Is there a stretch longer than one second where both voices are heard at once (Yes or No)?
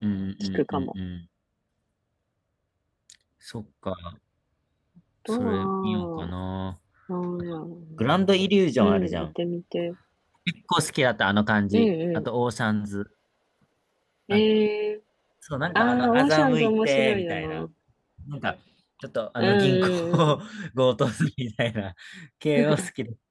Yes